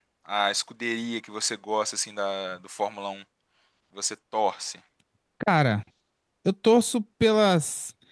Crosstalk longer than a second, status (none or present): none